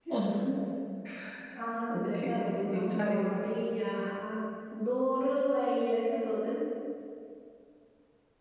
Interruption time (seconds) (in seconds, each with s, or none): 1.9 s